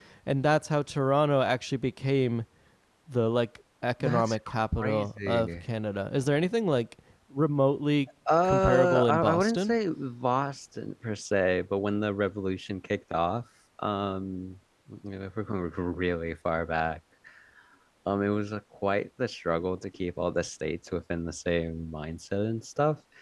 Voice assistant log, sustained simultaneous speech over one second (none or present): present